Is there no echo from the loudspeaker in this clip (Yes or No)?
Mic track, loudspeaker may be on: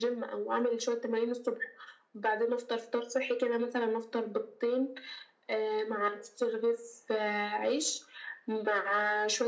No